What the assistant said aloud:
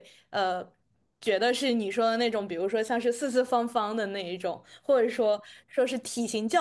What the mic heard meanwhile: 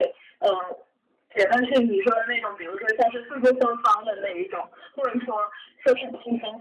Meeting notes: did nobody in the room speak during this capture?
Yes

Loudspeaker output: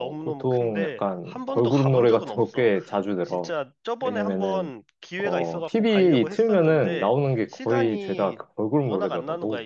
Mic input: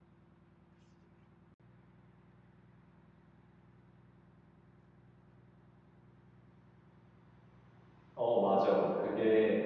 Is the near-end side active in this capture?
Yes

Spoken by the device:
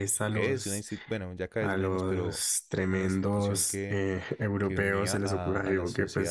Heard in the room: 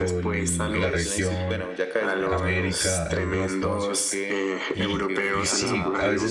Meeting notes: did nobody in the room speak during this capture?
No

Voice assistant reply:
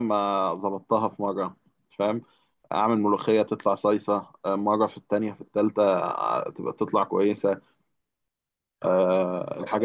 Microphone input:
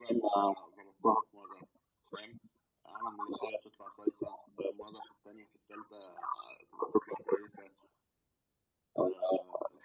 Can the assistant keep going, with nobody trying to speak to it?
Yes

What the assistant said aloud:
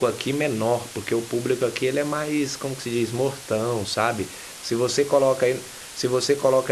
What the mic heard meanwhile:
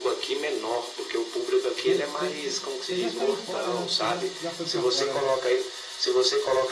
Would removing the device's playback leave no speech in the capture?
No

